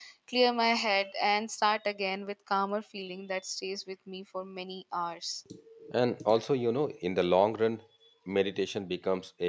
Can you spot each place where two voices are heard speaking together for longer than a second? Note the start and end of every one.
none

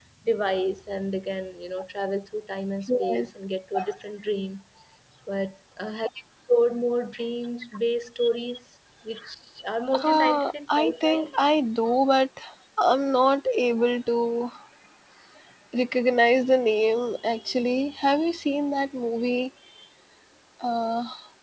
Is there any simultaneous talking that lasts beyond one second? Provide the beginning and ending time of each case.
10.0-11.3

